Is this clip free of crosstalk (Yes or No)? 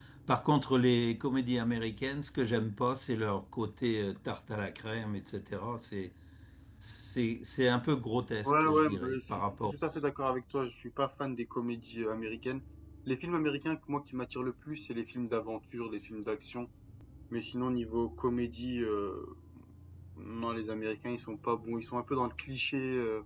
No